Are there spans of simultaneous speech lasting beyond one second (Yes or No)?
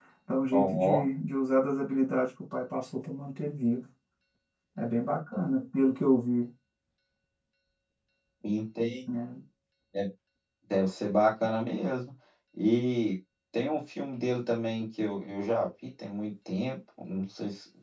No